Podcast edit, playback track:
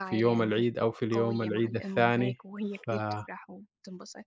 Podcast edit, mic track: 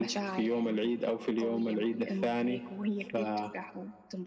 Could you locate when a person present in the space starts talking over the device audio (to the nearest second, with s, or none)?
none